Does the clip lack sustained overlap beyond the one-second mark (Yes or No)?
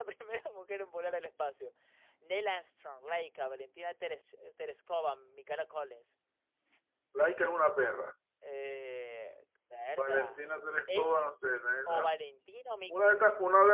Yes